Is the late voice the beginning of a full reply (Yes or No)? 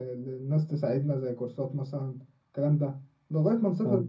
No